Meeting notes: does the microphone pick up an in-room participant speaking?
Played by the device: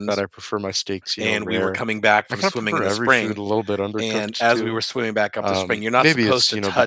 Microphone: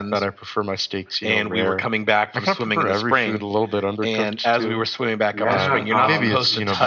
Yes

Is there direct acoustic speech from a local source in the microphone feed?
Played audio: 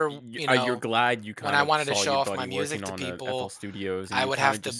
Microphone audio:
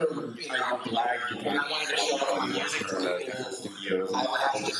No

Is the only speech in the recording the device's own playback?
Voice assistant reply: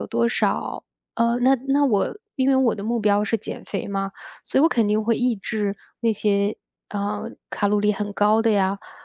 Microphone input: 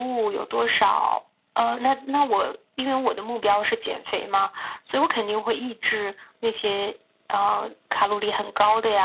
Yes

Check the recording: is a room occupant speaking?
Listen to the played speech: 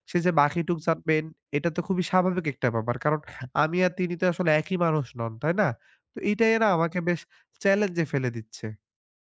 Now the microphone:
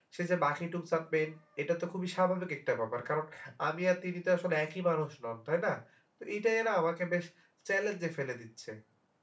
No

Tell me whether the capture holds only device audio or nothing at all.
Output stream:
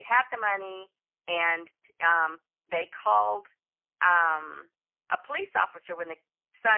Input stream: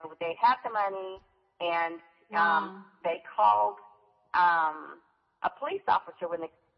No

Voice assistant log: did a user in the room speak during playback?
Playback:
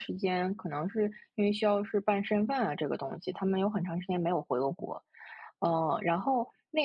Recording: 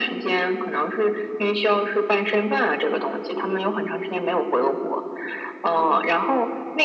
Yes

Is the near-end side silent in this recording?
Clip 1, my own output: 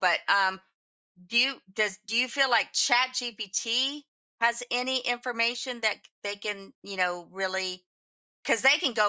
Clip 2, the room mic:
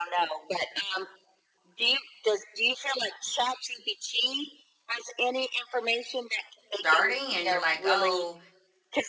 No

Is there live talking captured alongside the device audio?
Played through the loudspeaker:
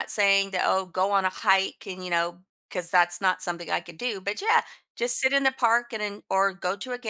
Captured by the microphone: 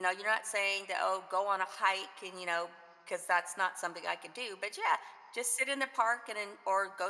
No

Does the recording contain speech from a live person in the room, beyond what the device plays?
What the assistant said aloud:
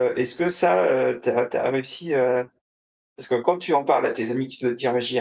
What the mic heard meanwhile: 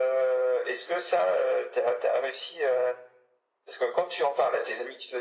No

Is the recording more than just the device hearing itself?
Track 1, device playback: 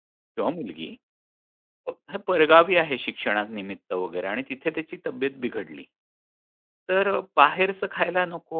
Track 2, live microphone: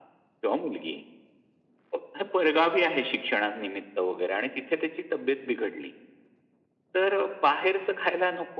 No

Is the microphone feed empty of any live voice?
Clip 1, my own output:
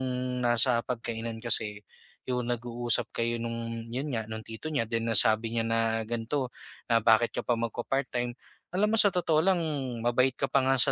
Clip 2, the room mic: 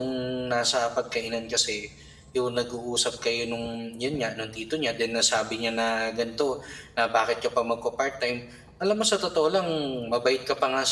Yes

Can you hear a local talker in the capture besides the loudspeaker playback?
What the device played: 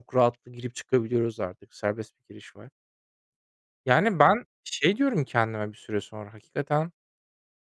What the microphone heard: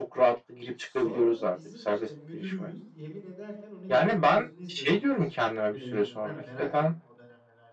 Yes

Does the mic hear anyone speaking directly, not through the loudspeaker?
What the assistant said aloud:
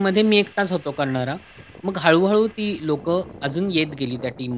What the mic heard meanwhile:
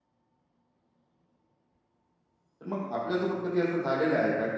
Yes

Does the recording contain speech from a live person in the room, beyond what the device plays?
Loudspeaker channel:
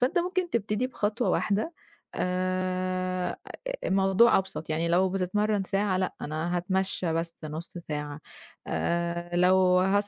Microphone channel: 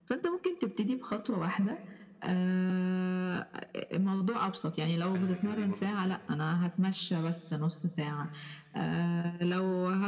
Yes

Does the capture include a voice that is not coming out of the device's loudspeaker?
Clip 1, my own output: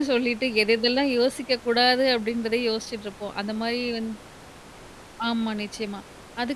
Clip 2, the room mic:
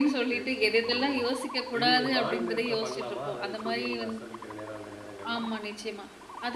Yes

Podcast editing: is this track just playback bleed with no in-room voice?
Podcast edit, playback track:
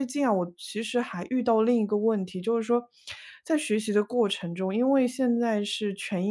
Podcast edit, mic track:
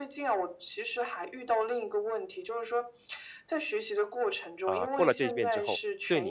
No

